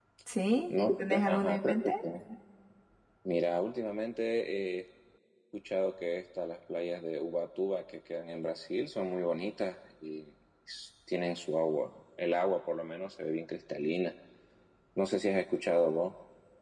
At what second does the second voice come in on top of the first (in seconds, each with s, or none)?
0.7 s